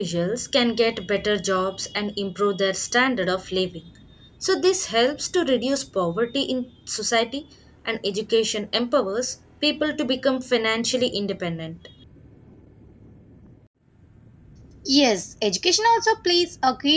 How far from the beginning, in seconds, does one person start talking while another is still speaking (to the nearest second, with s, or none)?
none